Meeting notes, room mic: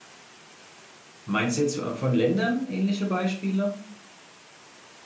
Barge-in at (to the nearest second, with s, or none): 1 s